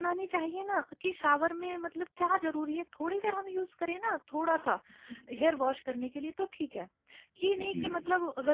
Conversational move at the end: listening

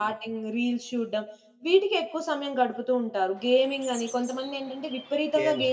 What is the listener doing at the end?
listening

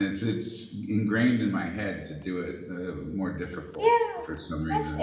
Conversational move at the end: taking over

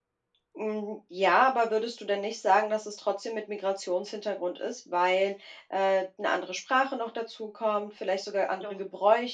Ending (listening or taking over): listening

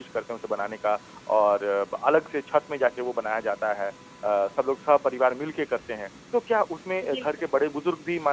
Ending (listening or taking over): listening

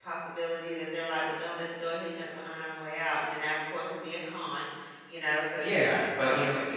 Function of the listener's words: taking over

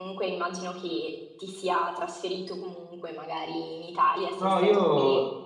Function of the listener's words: taking over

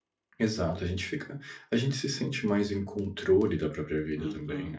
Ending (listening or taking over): taking over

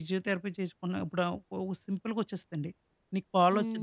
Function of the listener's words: listening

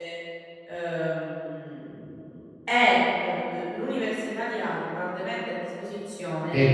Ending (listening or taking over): taking over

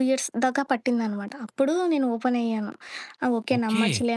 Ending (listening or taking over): taking over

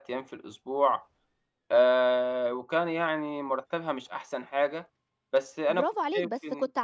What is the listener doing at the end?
taking over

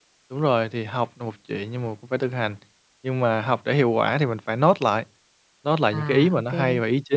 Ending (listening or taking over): listening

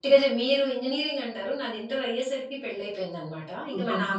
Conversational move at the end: listening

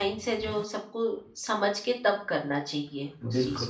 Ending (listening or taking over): taking over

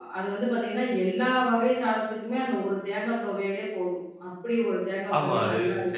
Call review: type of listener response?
taking over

